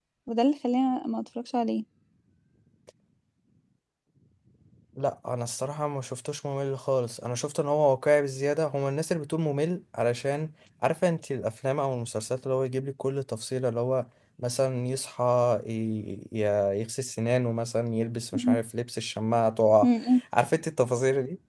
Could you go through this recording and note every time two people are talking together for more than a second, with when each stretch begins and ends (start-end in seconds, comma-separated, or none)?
none